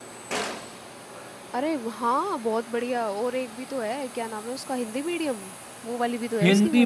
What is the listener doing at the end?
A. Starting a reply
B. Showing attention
A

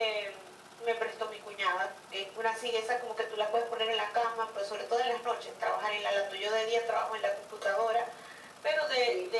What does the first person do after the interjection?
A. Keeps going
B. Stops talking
A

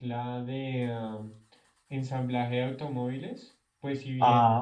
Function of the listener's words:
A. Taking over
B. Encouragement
B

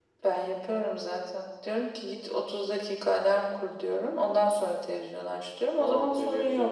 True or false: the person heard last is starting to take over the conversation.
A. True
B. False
A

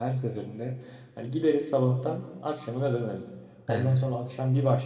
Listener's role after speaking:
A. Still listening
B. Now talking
A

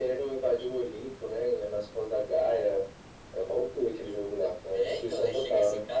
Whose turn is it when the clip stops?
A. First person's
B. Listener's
B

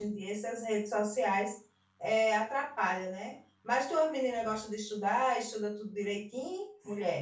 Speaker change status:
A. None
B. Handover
B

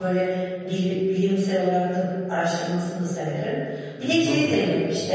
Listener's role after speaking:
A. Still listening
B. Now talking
A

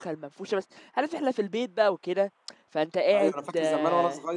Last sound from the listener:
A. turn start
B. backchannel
A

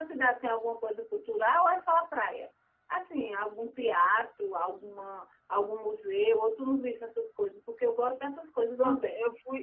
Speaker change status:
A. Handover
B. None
A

